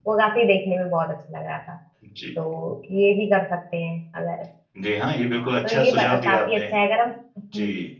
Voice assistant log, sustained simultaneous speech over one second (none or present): present